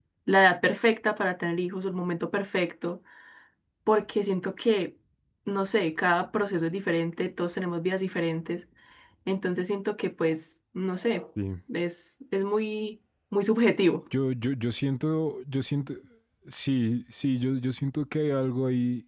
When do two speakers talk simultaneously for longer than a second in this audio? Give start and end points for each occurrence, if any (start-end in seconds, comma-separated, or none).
none